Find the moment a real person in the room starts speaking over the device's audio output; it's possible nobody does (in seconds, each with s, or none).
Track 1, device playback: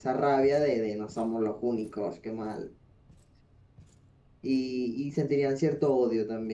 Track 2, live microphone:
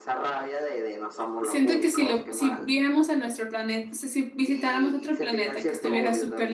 1.4 s